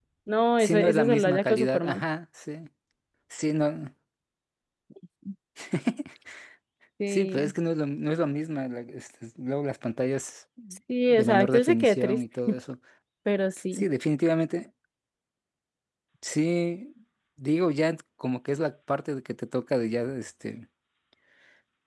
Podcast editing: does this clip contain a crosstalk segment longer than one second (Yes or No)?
Yes